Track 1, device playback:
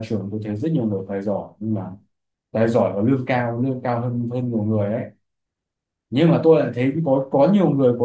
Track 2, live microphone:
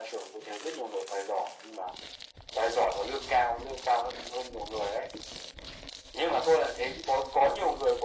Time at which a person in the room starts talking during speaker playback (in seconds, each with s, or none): none